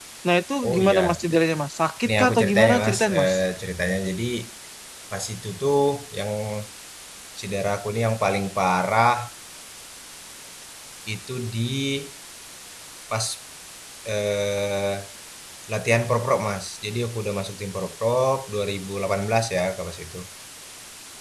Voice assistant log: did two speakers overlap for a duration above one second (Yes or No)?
Yes